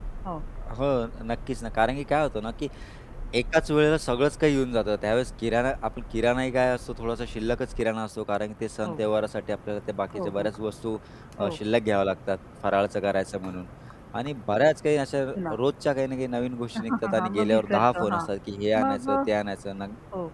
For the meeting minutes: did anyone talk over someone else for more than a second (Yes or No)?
Yes